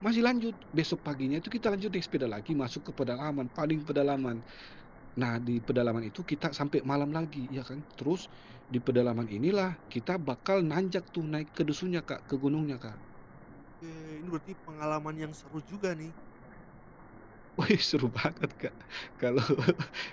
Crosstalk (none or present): none